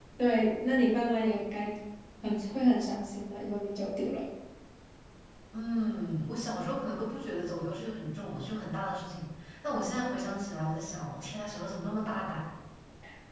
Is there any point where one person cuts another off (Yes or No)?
No